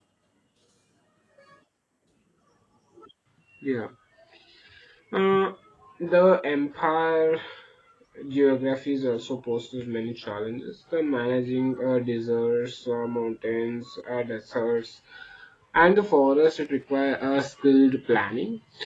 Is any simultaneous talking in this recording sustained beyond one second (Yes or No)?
No